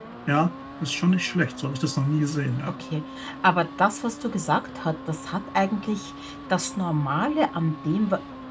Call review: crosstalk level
none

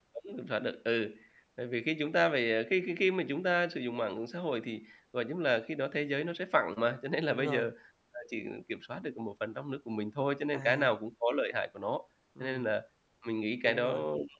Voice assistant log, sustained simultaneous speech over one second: none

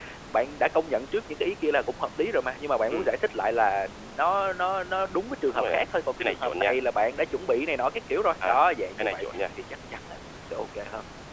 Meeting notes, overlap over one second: none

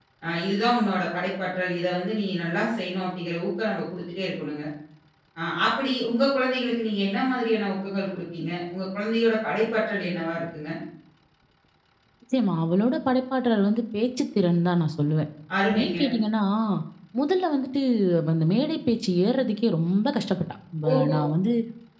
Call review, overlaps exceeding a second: none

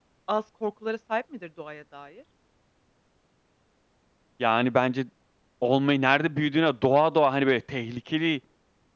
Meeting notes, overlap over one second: none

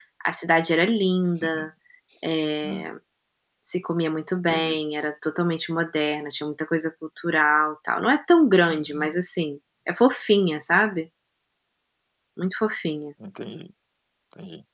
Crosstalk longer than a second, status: none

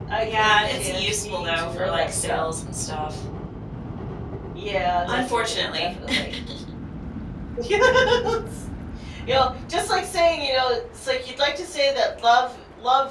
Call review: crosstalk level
present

